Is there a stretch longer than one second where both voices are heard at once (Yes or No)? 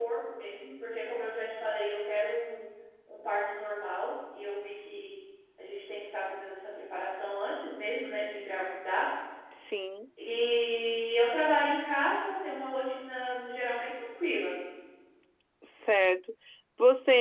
No